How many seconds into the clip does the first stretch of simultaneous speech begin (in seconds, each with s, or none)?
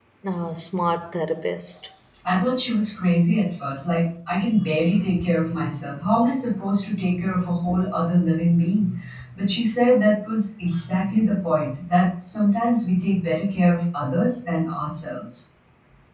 none